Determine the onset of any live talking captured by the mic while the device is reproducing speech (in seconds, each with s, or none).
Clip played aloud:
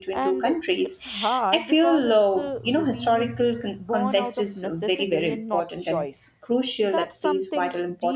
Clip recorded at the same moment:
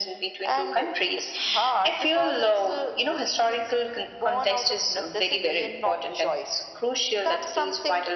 none